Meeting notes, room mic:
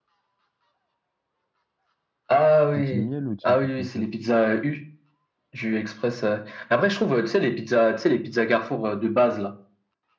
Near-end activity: present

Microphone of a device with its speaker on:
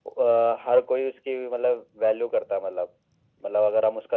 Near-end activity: none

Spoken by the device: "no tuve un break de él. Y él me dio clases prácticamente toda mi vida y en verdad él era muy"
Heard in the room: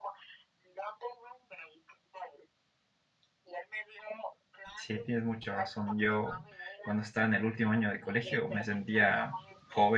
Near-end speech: present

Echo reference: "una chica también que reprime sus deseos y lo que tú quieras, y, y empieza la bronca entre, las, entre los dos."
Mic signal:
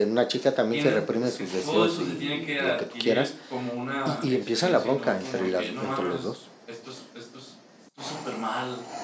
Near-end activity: present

